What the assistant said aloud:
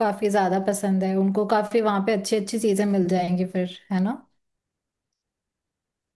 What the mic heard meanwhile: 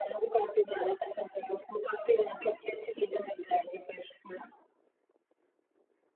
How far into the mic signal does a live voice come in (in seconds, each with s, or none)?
none